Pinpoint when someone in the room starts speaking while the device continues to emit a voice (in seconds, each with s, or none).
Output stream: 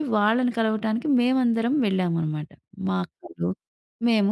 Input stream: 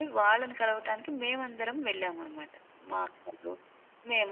none